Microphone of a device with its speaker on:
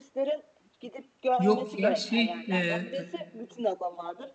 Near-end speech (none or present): present